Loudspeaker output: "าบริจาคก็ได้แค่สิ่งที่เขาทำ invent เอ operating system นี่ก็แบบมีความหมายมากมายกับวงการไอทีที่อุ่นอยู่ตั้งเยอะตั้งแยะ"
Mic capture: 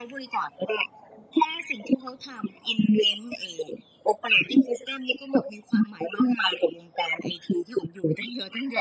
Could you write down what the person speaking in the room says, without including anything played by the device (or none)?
none